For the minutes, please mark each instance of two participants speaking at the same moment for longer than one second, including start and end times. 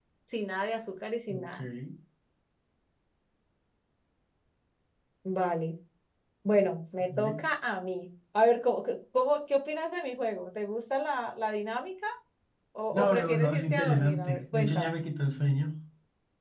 12.9-15.0

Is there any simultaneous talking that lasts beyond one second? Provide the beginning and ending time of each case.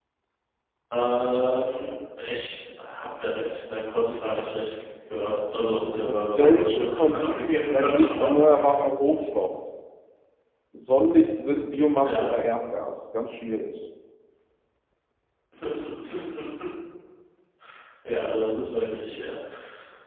6.0-8.3

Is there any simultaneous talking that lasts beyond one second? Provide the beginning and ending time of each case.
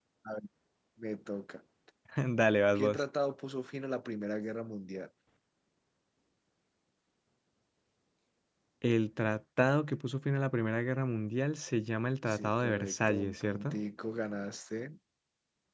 12.3-13.8

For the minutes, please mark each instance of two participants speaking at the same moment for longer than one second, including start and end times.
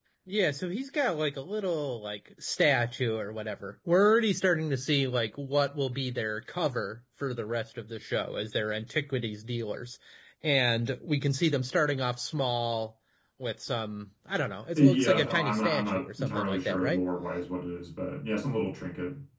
14.8-17.0

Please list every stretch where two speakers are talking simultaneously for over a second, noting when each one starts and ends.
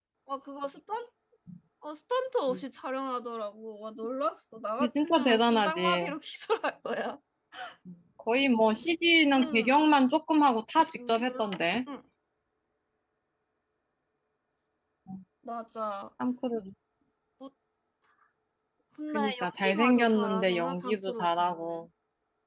4.8-6.1, 19.1-21.8

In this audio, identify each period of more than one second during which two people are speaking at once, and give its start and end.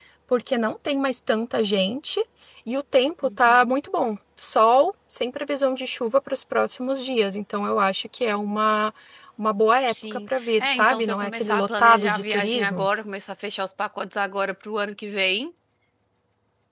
9.9-12.9

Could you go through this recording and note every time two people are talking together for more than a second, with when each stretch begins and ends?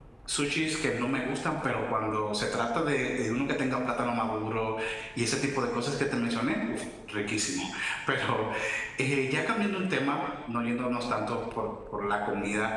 none

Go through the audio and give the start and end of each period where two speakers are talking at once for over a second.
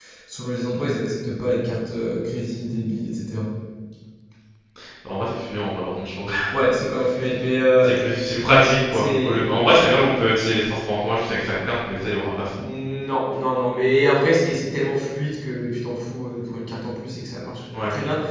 none

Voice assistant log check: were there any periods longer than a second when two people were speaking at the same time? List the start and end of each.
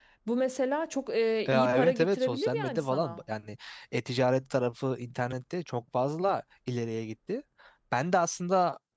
1.5-3.2

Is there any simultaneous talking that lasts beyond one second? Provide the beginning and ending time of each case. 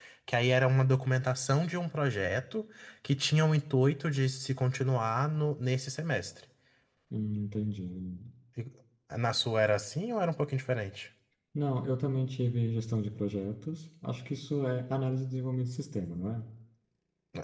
none

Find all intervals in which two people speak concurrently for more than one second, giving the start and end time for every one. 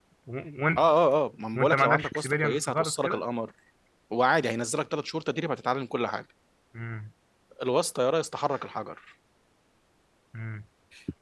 1.6-3.2

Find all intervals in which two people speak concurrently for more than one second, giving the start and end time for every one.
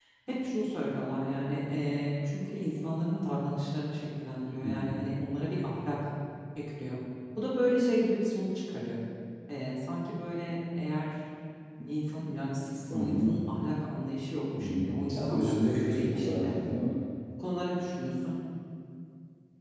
14.6-16.5

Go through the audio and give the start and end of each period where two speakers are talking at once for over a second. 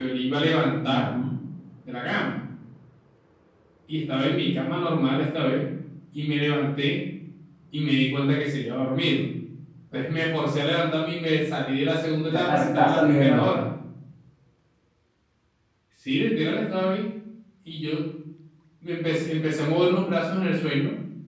12.3-13.5

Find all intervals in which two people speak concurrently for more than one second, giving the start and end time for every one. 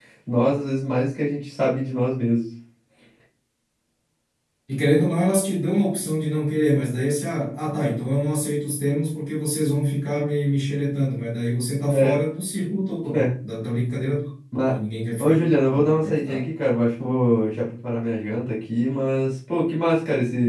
15.2-16.4

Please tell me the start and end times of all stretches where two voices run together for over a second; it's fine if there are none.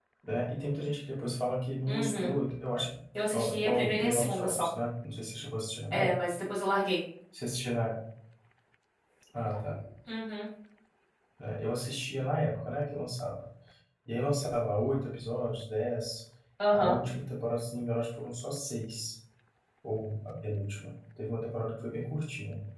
3.3-4.7

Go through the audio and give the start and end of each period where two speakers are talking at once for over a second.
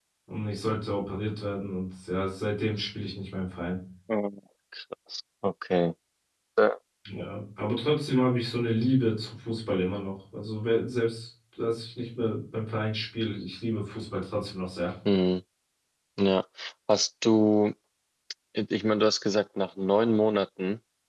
none

